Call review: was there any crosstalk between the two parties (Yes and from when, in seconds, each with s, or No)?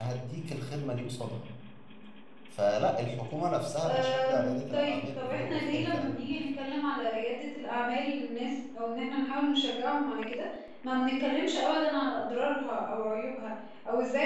Yes, from 3.7 s